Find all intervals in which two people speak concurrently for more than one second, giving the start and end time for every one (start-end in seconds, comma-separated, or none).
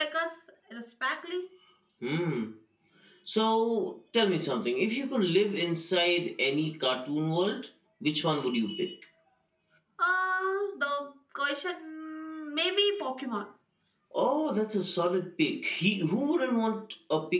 none